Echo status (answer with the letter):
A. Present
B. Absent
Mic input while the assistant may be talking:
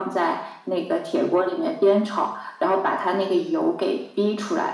A